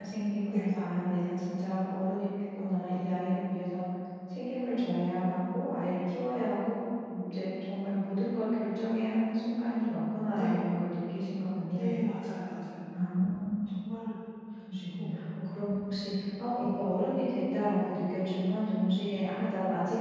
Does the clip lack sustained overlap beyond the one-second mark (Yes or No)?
Yes